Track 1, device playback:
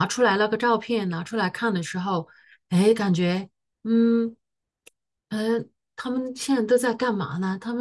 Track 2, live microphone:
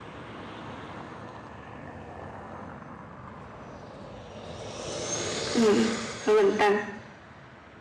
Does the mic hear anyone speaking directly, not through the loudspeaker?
Yes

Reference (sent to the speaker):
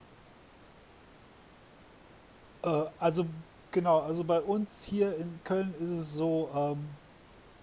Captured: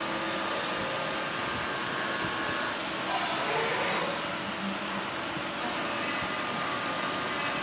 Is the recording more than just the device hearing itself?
No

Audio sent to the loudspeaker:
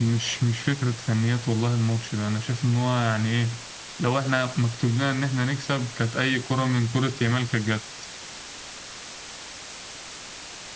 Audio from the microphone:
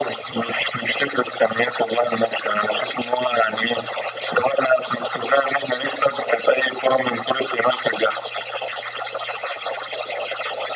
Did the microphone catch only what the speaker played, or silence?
Yes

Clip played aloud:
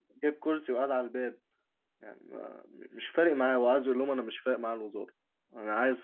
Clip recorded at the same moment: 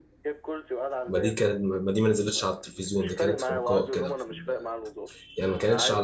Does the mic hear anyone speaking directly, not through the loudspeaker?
Yes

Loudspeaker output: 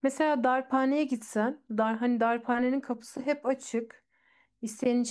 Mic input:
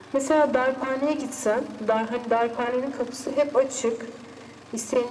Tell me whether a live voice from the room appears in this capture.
No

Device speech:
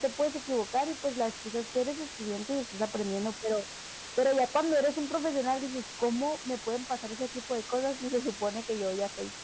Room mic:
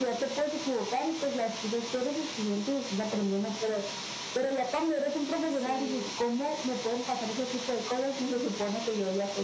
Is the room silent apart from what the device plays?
No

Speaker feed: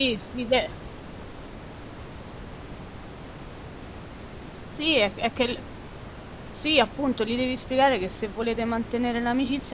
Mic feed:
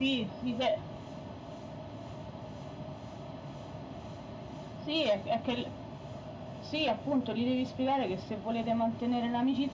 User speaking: No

